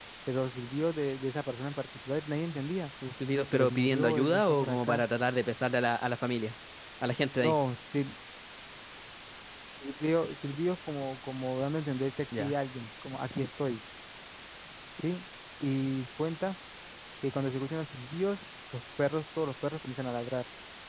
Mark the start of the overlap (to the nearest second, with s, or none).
3 s